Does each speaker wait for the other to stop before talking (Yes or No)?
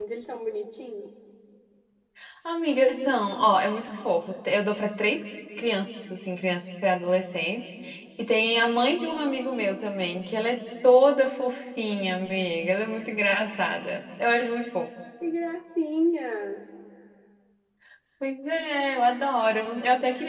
Yes